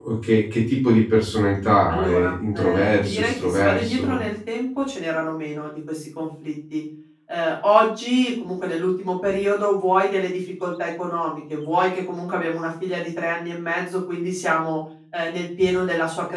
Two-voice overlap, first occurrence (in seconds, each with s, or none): 1.9 s